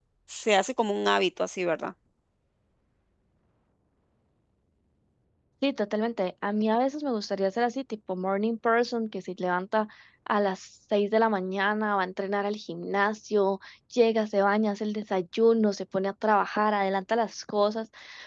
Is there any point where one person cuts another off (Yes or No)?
No